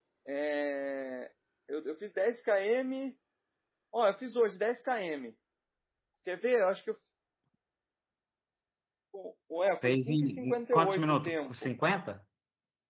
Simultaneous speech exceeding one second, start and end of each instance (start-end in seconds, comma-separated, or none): 9.8-11.6